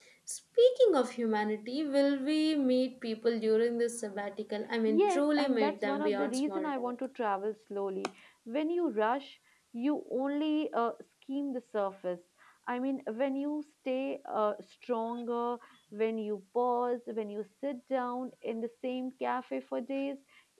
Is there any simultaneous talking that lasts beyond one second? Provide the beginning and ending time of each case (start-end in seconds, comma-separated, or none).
4.9-6.9